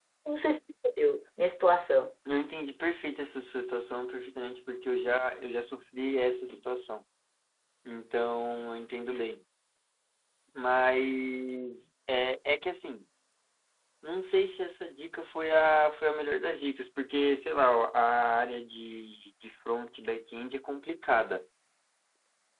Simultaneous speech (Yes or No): No